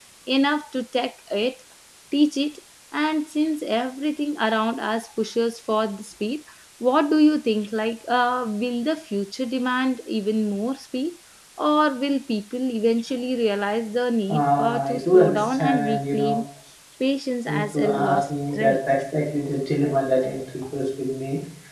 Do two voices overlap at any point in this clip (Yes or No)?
Yes